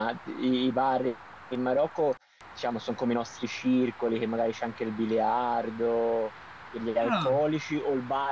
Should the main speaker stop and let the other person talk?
No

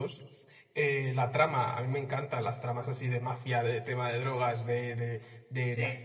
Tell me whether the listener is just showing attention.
Yes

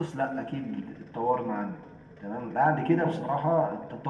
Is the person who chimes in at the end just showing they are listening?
Yes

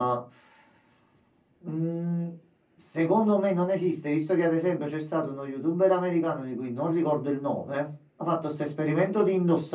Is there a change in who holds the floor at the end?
No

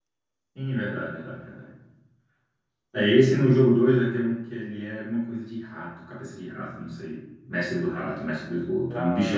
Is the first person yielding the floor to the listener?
No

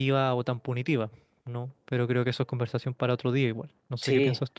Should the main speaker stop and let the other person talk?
Yes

